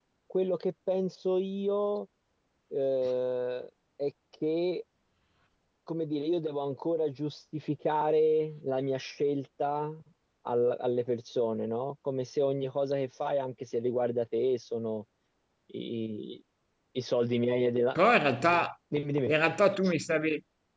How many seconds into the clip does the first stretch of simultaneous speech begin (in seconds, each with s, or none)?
none